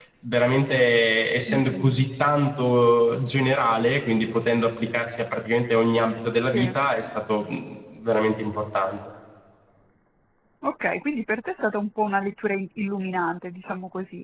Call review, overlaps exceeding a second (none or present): none